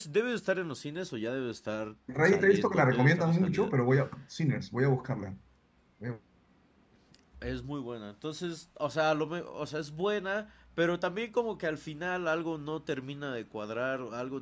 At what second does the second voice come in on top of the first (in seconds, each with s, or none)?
2.1 s